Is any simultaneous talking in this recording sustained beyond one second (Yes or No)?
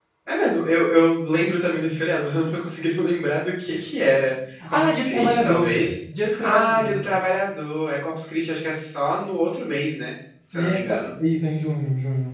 Yes